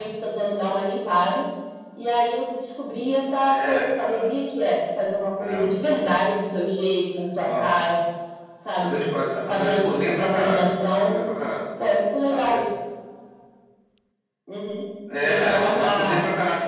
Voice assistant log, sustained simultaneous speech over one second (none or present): present